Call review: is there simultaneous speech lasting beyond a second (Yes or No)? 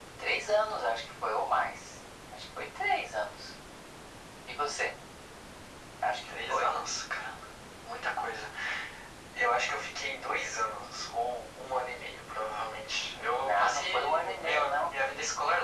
Yes